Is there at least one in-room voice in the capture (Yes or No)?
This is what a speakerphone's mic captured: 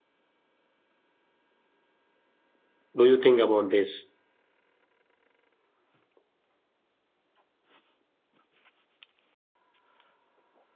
Yes